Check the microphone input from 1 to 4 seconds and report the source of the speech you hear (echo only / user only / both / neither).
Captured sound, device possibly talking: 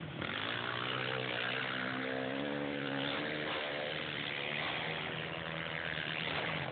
neither